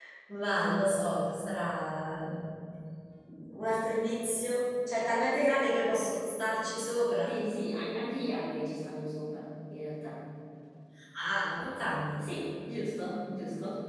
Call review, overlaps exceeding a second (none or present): none